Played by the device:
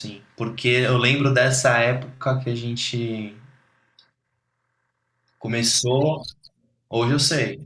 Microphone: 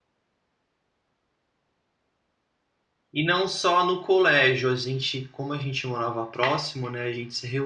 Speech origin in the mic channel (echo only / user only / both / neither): user only